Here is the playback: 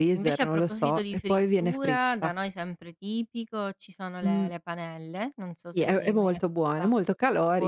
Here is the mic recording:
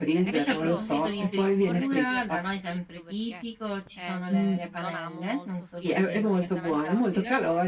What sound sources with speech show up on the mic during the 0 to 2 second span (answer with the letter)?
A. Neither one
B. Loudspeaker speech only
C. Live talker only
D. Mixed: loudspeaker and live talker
D